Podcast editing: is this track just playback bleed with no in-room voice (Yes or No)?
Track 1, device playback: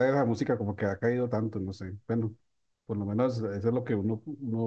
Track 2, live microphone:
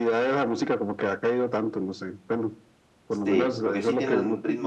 No